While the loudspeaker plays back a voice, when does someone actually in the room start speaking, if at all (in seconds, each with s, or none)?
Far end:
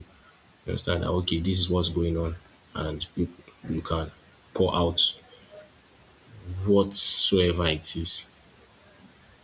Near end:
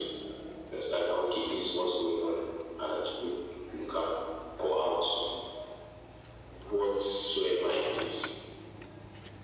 none